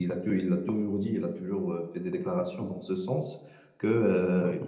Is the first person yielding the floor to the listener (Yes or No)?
No